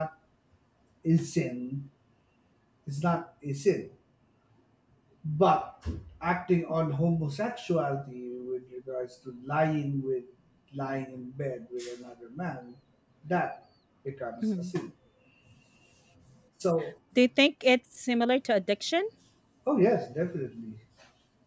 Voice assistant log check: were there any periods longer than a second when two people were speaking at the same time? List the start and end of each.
none

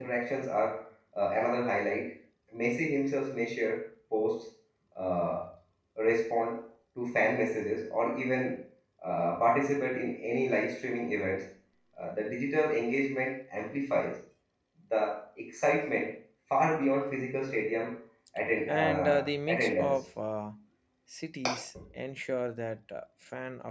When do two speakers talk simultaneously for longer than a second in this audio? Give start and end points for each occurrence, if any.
18.7-20.0

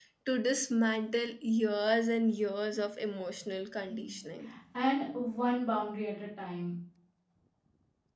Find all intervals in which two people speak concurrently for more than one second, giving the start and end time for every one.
none

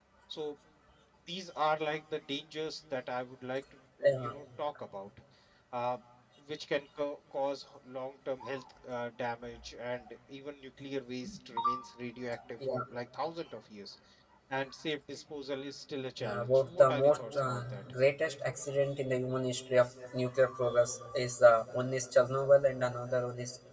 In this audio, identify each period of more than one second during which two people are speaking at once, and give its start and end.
16.2-17.8

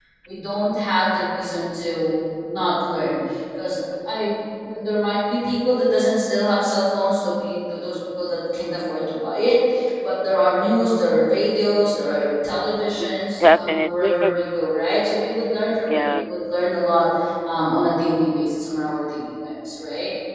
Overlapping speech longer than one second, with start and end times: 13.0-14.4

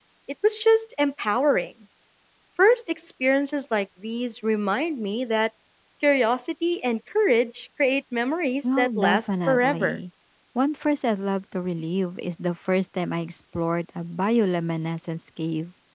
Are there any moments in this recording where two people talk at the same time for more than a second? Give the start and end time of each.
8.6-10.0

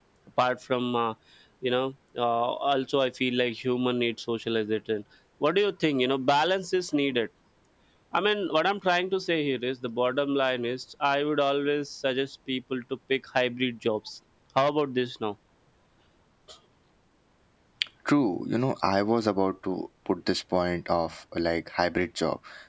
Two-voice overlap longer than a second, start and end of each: none

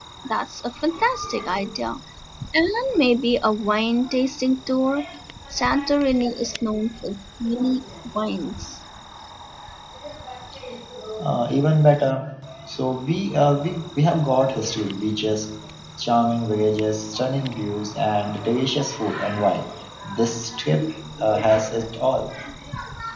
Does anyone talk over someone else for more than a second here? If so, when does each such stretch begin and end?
none

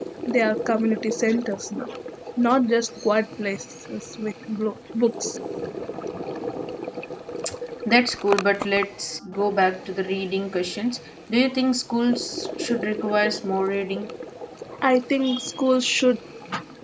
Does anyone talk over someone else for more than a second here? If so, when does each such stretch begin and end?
none

